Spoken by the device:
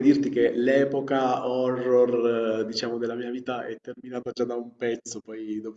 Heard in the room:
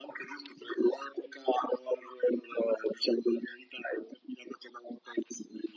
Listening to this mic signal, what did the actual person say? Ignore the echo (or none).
none